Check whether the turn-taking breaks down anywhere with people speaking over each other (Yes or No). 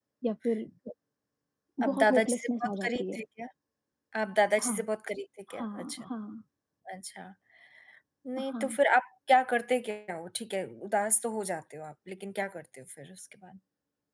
Yes